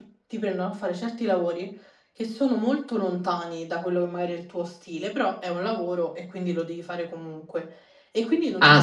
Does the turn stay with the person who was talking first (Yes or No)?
No